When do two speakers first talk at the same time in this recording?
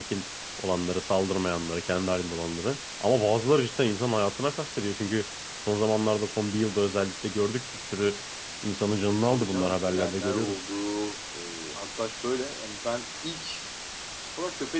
9.1 s

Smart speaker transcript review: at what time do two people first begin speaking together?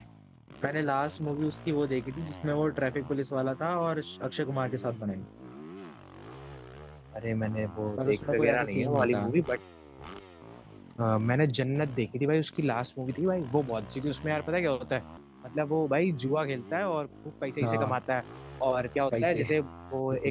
8.0 s

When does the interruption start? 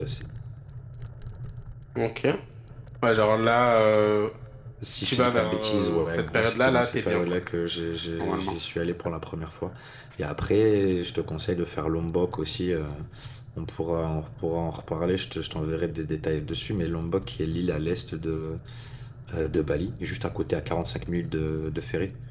4.8 s

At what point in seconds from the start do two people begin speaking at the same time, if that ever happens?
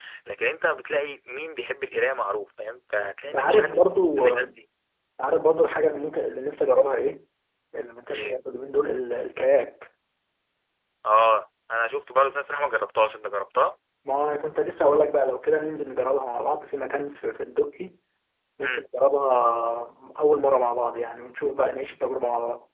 3.2 s

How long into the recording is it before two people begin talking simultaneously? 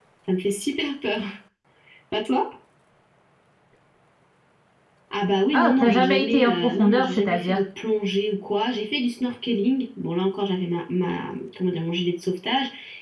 5.5 s

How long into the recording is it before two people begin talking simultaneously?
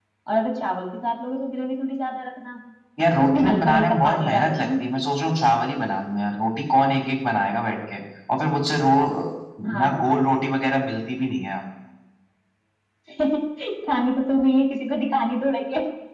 3.2 s

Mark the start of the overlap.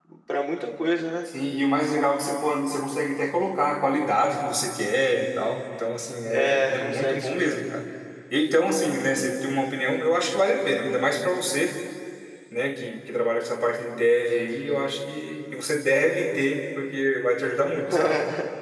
6.3 s

